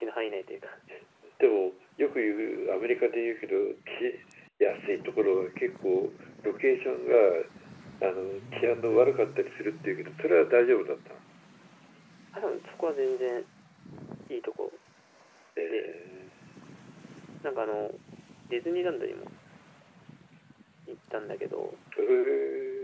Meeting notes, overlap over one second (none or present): none